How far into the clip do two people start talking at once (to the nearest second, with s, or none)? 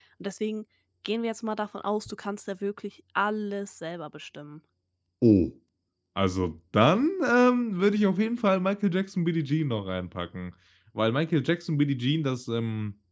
none